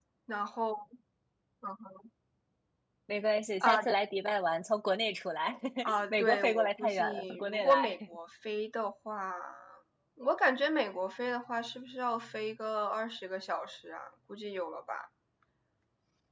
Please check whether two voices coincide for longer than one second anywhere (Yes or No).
Yes